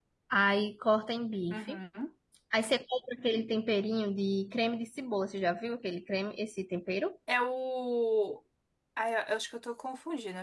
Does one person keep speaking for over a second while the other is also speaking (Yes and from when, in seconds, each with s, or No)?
No